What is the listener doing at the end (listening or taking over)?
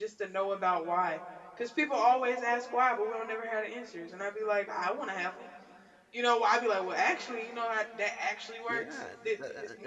taking over